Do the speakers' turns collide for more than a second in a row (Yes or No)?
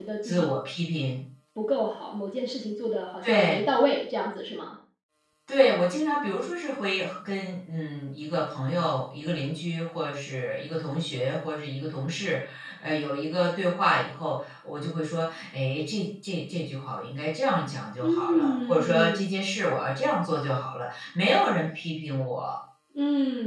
Yes